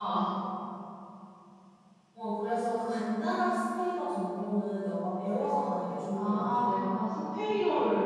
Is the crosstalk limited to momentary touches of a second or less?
Yes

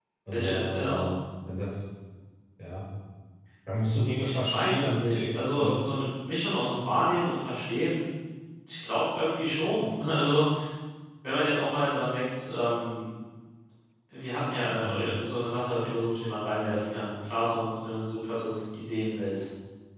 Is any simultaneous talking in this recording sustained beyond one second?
Yes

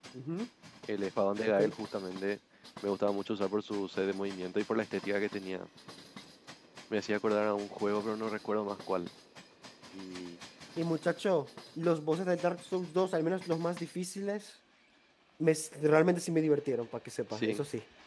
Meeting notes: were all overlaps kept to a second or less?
Yes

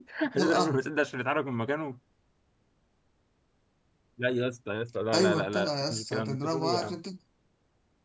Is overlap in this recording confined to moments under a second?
No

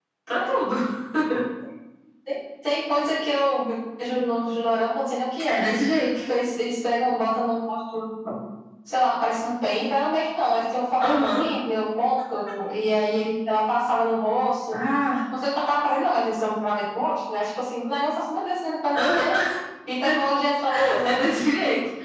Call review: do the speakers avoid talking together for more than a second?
Yes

